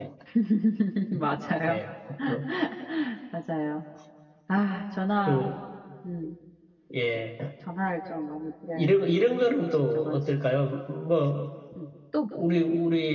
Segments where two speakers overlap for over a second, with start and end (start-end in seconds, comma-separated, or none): 8.7-10.2